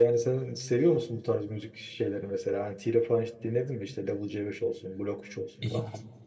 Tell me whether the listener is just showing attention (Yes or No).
No